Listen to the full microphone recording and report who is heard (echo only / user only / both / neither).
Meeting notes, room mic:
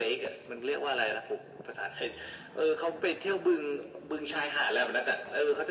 echo only